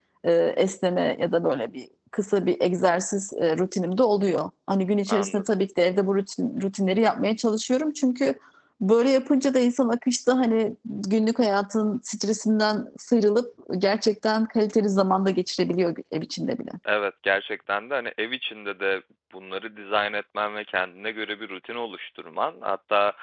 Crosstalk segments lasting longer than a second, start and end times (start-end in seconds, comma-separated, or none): none